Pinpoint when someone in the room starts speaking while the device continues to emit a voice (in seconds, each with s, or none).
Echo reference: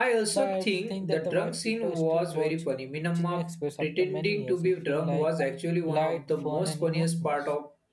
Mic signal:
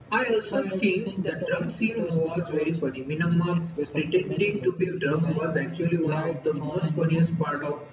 none